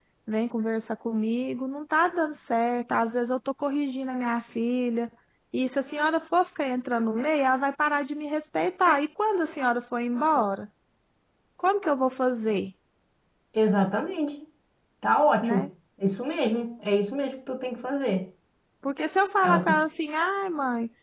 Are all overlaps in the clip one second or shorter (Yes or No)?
Yes